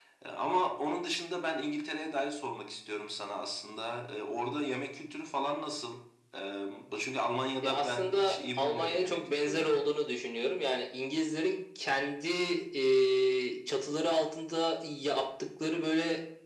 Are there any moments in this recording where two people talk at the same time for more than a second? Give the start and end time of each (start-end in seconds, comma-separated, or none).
7.6-9.8